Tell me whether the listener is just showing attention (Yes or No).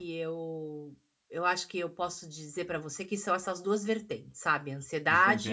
No